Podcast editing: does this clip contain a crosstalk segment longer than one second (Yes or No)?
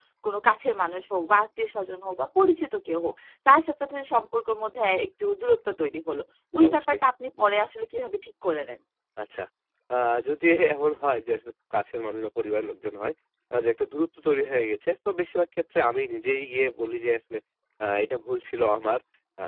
No